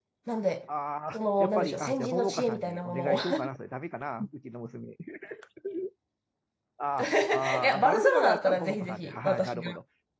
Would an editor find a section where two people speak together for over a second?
Yes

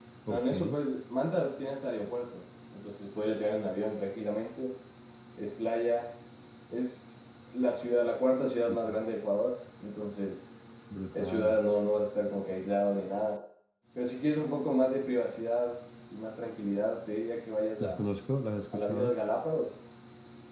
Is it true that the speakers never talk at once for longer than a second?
Yes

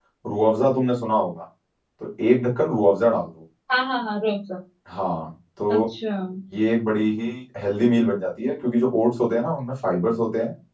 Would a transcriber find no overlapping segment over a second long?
Yes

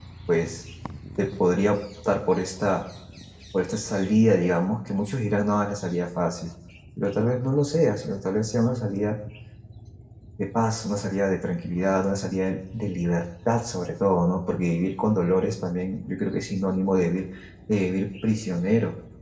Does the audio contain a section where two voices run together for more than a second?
No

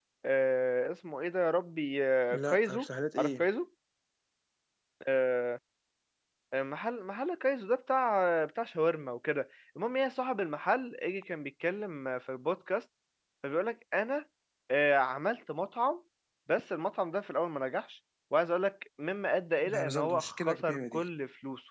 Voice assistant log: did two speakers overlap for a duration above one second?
Yes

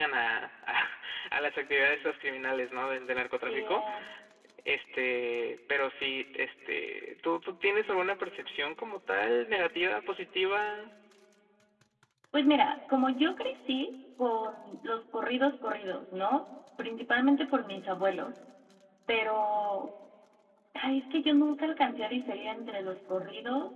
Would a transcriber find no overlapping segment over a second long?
Yes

